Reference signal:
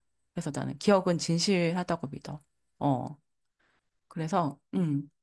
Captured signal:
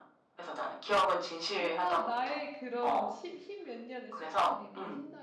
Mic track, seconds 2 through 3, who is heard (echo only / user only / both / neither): both